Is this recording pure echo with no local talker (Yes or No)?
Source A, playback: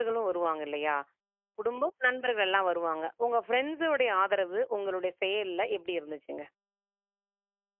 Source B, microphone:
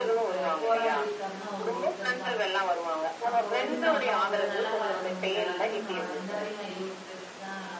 No